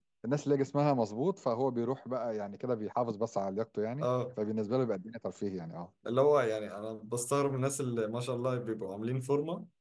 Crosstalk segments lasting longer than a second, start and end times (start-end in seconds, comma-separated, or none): none